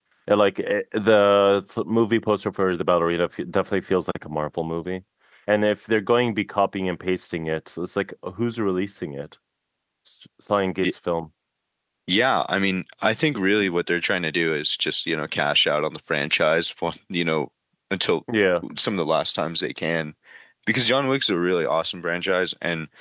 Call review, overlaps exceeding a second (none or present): none